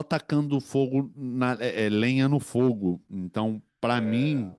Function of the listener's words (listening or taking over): listening